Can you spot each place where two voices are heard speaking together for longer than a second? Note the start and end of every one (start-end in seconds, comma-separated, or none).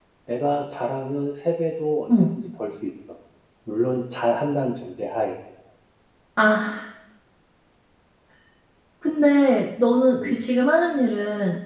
none